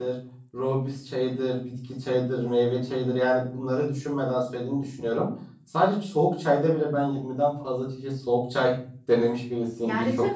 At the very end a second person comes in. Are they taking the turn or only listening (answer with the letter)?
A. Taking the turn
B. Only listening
A